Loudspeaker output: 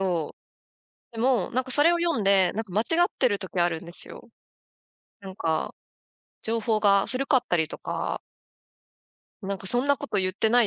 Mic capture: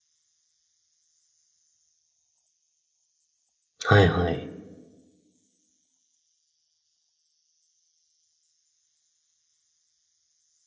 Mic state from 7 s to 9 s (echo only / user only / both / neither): neither